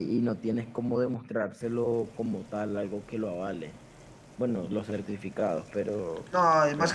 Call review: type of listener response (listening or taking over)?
taking over